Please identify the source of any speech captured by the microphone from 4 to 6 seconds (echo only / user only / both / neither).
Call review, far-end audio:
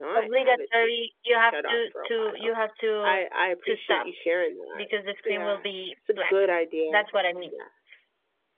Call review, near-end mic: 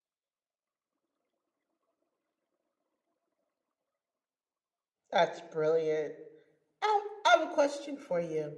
user only